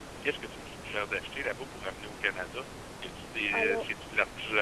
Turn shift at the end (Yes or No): No